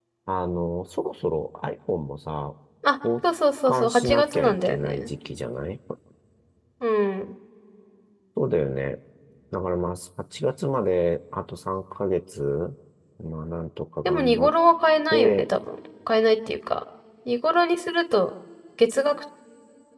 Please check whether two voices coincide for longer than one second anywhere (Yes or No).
Yes